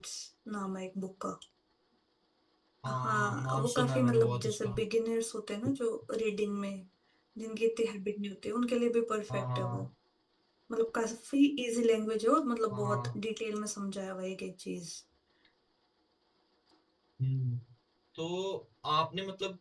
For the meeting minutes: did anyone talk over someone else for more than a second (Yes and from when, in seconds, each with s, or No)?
Yes, from 3.0 s